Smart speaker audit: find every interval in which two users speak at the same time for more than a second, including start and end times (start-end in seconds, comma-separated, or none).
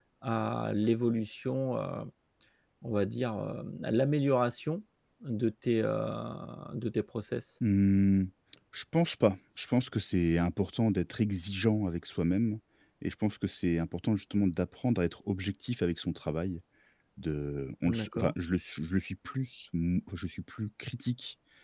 none